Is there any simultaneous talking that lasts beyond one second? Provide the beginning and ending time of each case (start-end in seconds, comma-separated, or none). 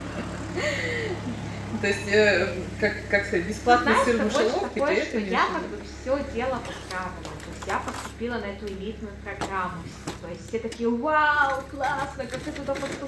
3.6-5.7